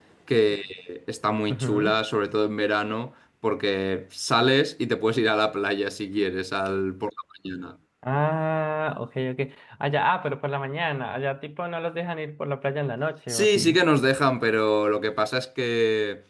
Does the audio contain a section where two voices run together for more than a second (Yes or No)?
No